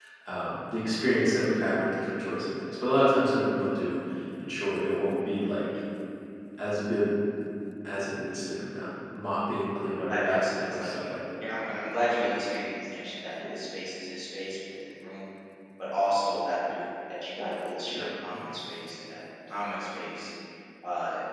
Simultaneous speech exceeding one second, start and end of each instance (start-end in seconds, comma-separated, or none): 10.0-11.4